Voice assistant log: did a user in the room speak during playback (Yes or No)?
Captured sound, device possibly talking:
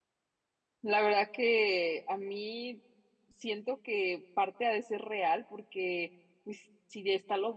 Yes